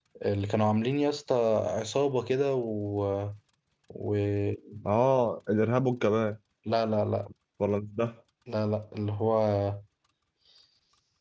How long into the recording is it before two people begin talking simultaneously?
none

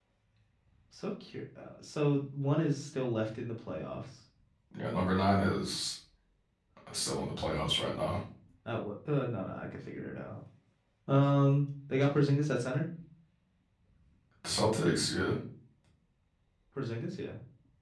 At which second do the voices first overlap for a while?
none

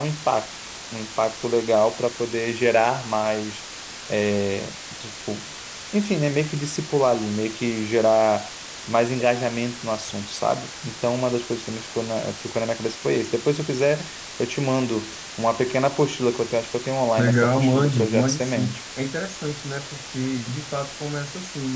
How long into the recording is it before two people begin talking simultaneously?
17.2 s

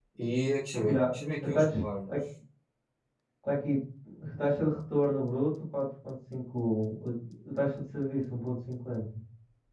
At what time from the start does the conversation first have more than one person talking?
0.9 s

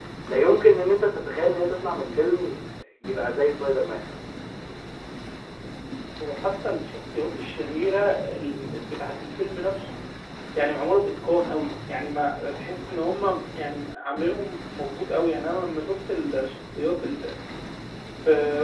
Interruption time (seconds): none

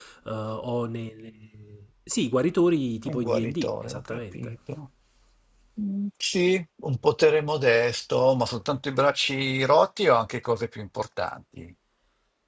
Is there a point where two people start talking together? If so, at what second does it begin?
3.1 s

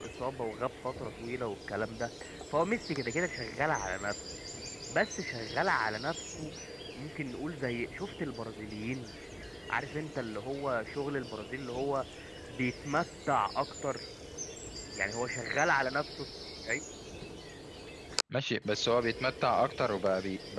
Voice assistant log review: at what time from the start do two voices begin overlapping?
none

